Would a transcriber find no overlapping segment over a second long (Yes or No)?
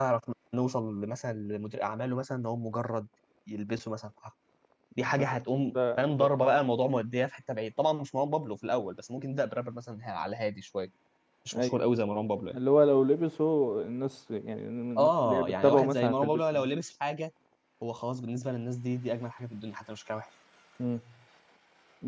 No